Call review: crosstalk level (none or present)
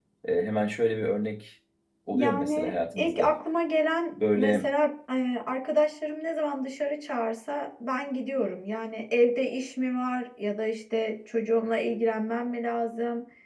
present